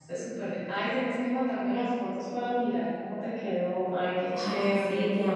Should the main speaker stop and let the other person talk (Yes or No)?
Yes